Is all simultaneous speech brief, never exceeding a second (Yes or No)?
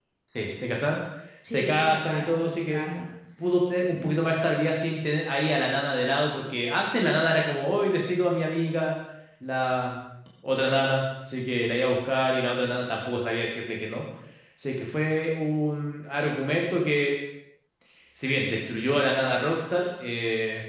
No